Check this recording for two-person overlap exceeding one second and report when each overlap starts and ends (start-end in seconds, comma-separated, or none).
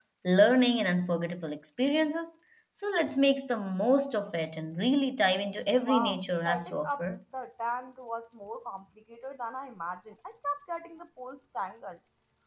5.8-7.1